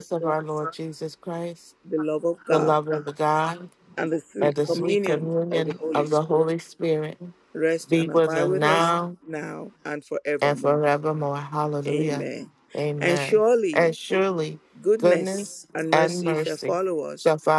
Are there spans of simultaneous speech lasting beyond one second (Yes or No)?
Yes